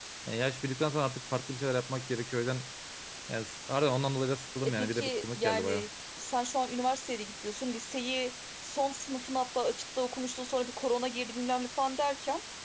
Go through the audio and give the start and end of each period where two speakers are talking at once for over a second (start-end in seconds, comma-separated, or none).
4.6-5.8